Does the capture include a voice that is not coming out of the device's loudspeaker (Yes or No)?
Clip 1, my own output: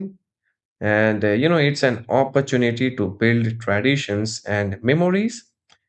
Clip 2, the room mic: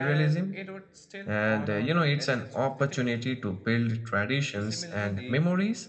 Yes